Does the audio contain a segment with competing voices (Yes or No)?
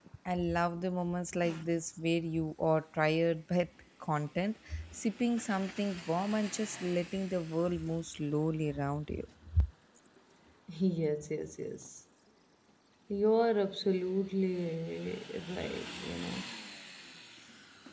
No